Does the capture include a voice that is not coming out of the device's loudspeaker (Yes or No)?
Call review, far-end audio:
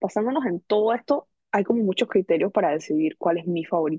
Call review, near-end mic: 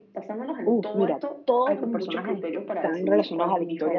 Yes